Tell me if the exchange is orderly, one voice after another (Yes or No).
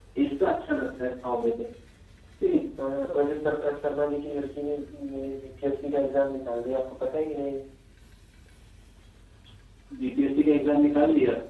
Yes